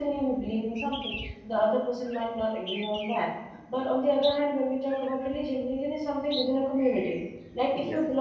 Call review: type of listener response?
listening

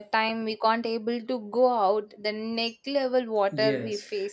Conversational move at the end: taking over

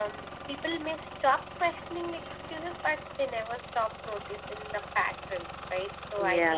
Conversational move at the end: listening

